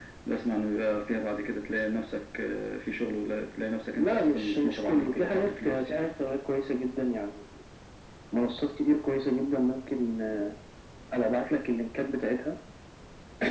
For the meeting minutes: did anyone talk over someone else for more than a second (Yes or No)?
Yes